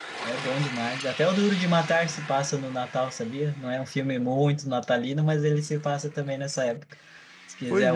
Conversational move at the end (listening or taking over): listening